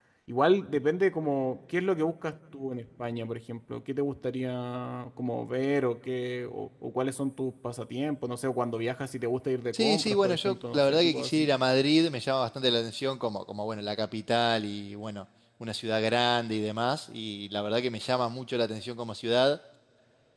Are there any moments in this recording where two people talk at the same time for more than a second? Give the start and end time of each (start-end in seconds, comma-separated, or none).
9.7-11.5